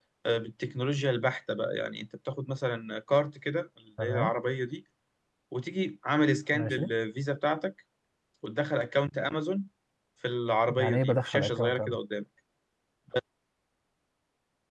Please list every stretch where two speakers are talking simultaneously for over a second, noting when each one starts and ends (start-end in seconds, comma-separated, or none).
10.7-12.0